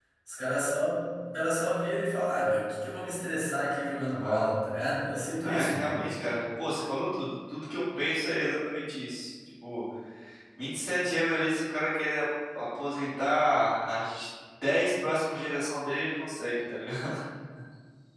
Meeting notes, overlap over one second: none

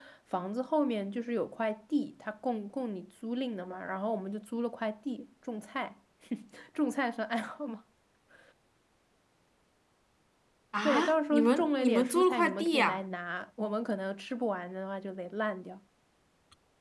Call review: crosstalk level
present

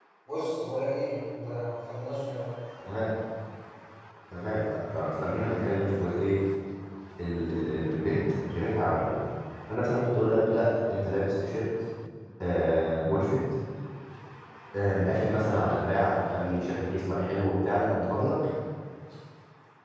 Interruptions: none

